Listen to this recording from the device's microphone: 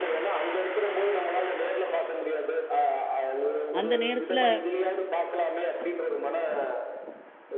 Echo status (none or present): present